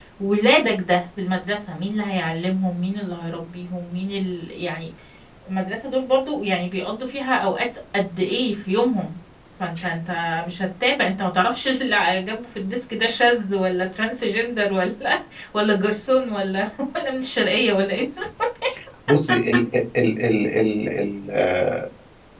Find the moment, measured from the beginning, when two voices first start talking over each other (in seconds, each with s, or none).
none